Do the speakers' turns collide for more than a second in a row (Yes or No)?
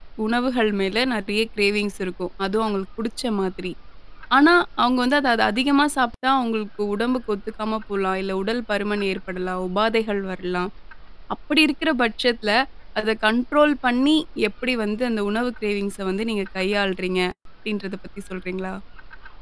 No